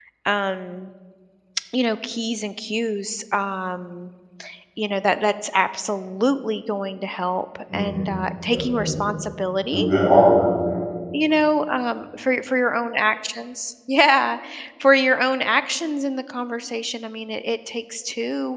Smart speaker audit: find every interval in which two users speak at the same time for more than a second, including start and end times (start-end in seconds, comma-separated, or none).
none